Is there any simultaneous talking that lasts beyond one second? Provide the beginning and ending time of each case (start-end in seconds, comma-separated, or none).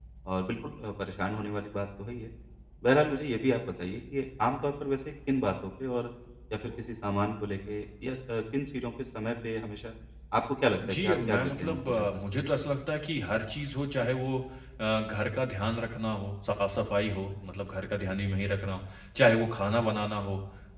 10.9-12.2